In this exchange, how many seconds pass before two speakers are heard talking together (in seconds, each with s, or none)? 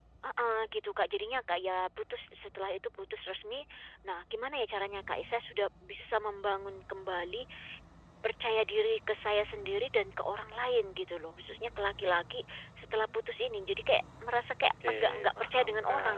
14.6 s